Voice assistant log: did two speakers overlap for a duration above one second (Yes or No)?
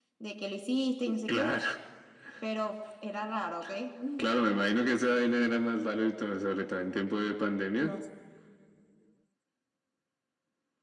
No